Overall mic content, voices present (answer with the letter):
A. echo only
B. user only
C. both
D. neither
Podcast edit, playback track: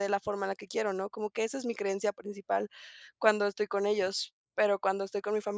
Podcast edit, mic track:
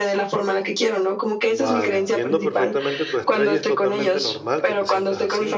C